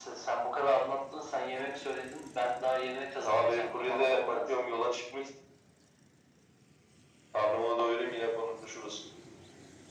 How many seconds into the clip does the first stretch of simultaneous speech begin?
3.2 s

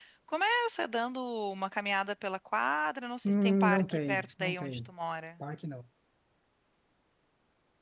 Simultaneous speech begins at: 3.2 s

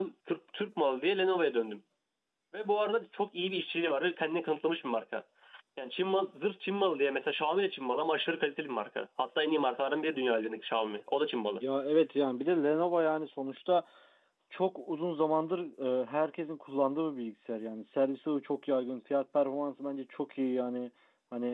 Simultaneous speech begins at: none

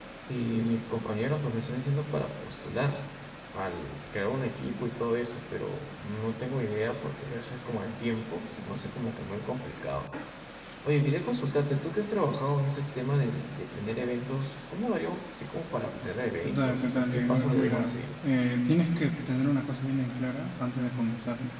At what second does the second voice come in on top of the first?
16.4 s

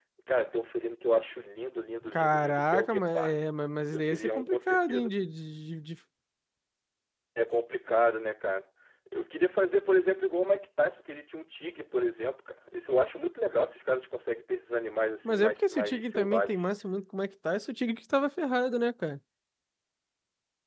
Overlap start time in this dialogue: 2.1 s

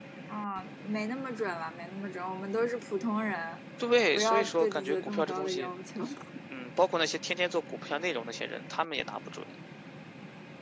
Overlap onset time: 4.1 s

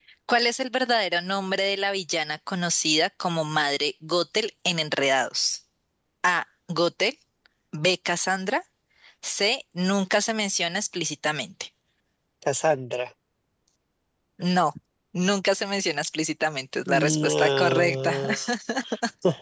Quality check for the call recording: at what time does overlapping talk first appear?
16.9 s

